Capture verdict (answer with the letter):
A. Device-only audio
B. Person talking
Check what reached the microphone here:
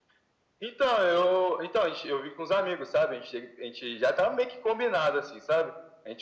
A